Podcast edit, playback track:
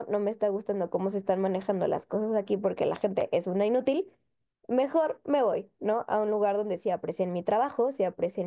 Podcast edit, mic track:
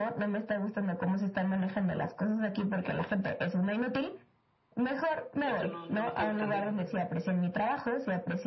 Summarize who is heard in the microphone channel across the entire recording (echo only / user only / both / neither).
both